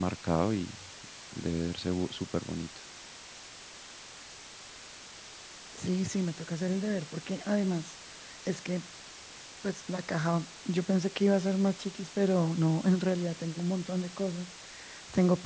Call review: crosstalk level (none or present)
none